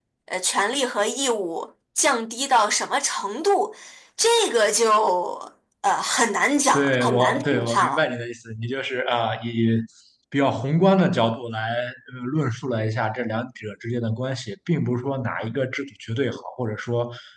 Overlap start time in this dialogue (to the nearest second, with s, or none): 7 s